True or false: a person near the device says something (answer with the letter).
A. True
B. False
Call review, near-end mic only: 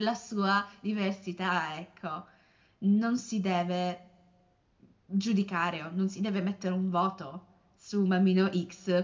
A